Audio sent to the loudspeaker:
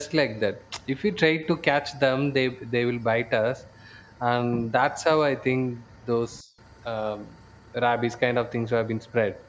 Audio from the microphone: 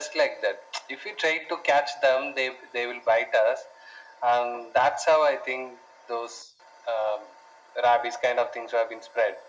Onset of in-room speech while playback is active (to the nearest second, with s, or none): none